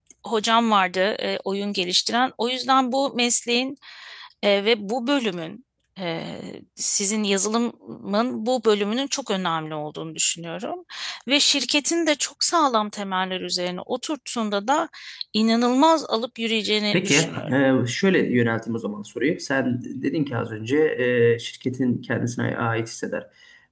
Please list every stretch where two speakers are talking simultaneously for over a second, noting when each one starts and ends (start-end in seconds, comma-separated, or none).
none